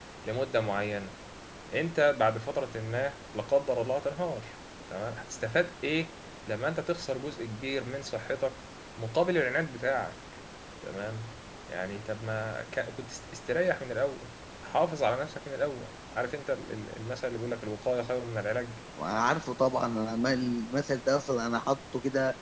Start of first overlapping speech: none

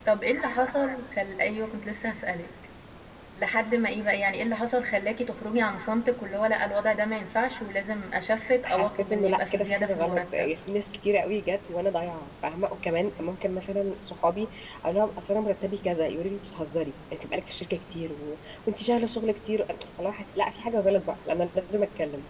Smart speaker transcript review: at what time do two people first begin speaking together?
9 s

